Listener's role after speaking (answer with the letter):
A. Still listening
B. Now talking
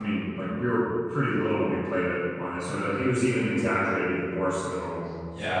B